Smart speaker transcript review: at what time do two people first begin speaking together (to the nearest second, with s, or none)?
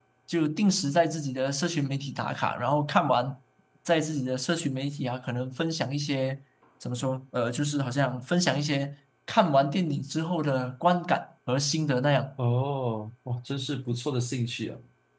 none